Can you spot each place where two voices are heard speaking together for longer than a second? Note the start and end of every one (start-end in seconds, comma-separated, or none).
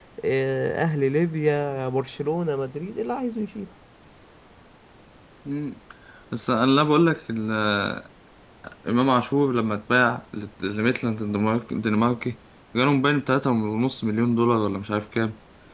none